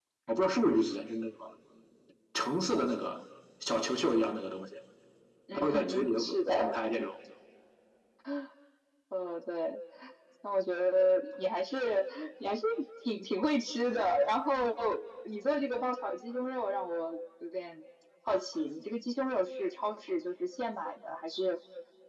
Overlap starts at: 6 s

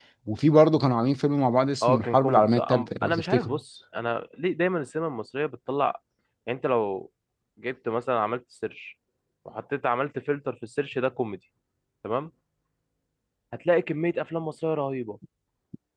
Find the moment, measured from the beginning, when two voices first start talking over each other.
2 s

